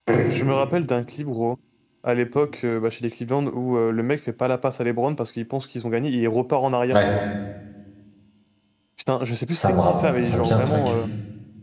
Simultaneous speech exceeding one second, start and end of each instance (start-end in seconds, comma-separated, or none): 9.5-10.9